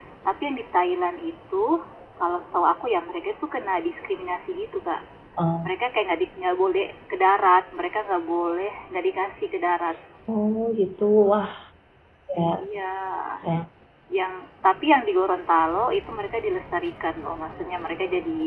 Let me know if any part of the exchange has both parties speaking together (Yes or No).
No